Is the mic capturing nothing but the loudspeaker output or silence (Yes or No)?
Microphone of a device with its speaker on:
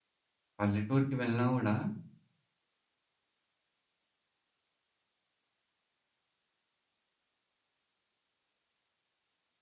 No